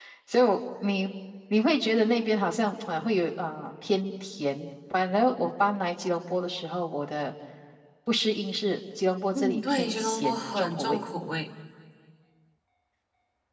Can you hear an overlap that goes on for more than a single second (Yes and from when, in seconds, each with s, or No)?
Yes, from 9.3 s